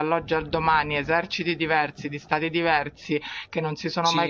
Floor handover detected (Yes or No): No